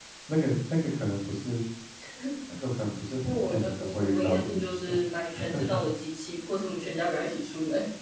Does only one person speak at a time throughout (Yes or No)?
No